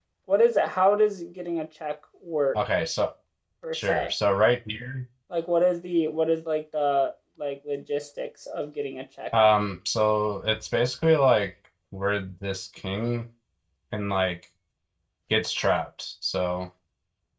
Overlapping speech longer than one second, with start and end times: none

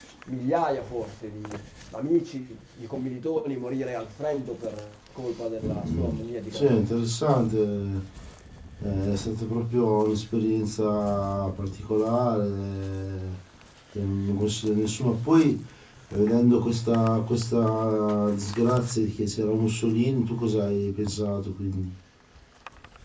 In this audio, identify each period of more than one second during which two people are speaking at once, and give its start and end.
none

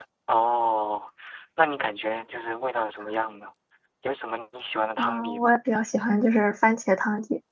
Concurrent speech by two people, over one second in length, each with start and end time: none

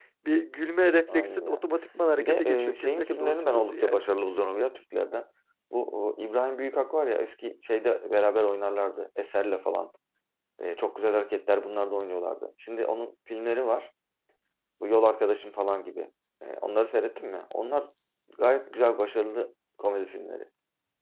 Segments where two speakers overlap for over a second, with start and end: 2.2-4.0

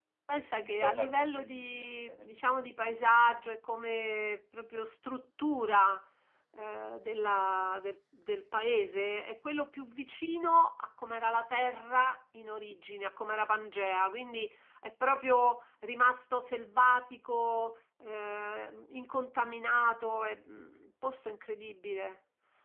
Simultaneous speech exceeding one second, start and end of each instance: 0.6-2.7

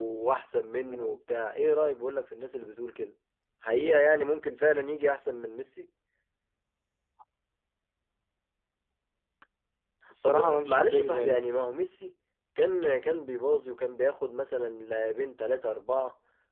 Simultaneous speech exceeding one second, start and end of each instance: 10.2-11.6

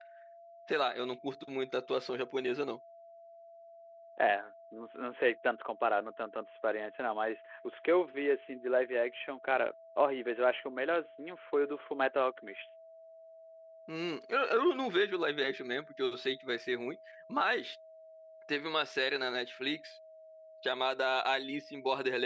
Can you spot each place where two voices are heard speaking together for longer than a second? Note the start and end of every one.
none

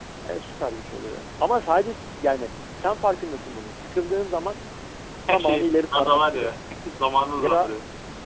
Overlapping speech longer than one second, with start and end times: 5.3-6.5

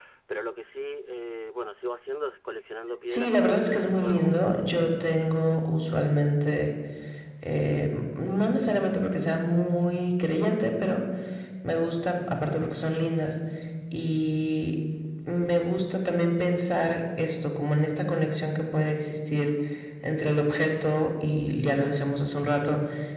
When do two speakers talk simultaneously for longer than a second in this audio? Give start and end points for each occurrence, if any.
3.1-4.5

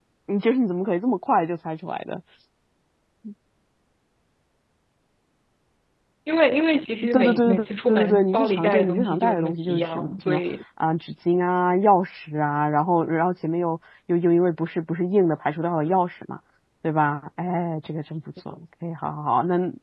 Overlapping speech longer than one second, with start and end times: 7.1-10.4

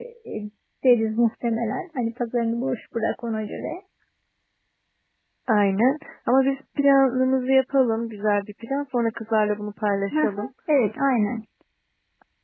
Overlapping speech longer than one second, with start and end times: none

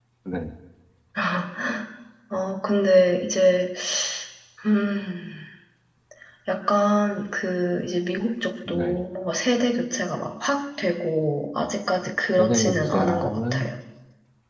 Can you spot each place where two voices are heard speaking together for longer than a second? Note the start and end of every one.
12.4-13.7

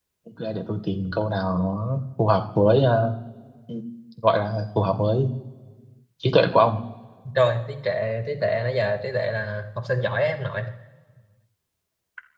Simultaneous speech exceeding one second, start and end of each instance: none

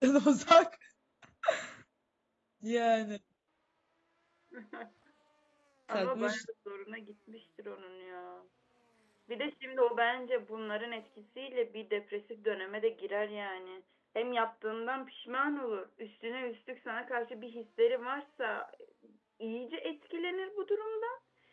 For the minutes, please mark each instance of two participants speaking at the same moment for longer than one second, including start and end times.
none

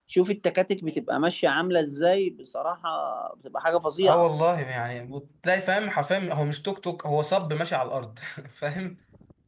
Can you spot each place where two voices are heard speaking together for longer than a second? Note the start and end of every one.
none

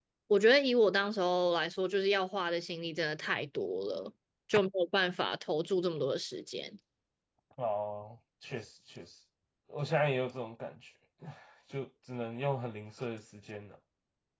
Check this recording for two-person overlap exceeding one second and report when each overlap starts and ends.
none

